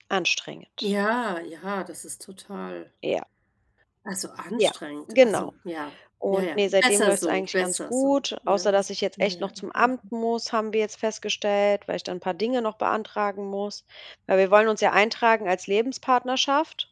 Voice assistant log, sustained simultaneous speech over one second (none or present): present